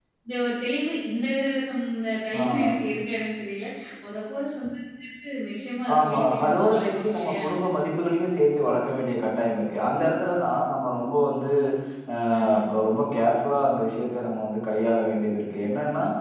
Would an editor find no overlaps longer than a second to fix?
No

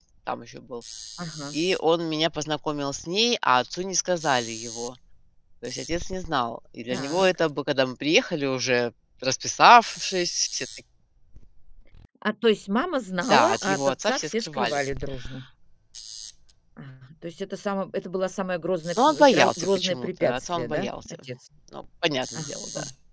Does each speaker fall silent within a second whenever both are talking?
No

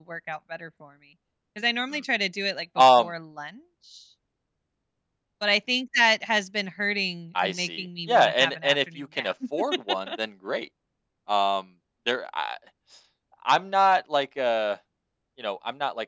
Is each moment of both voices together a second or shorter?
No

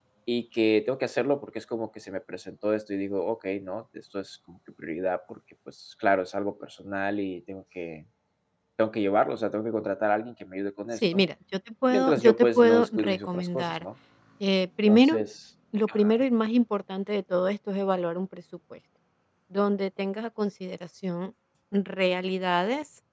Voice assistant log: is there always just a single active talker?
No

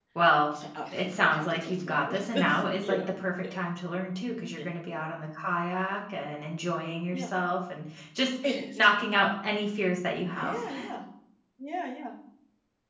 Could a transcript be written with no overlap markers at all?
No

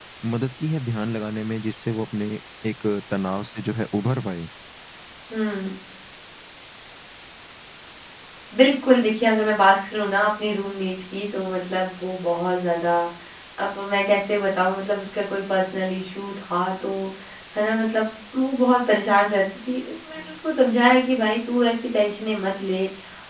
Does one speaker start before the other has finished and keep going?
No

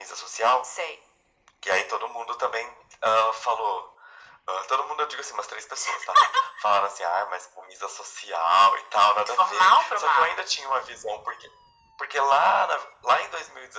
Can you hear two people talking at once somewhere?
Yes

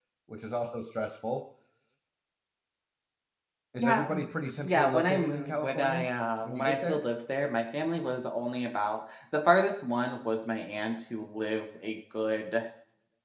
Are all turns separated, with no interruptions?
No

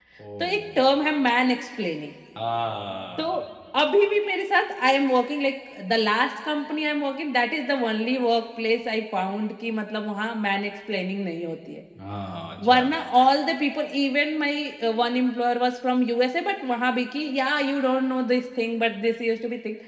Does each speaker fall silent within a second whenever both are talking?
Yes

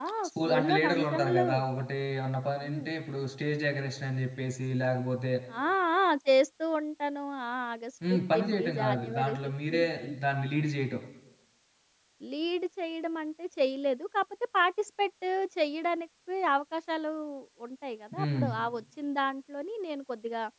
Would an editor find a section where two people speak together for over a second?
Yes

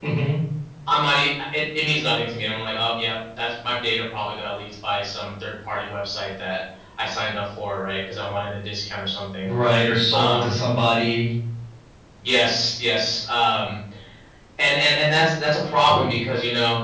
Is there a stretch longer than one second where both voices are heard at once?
No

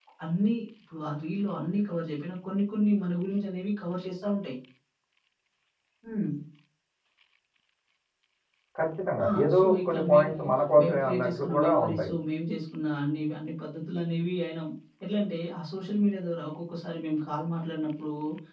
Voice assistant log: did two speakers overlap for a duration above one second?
Yes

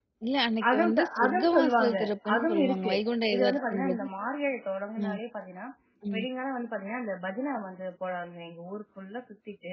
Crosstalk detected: Yes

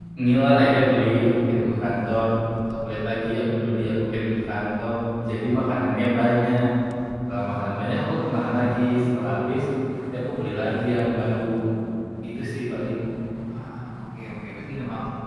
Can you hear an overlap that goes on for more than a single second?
No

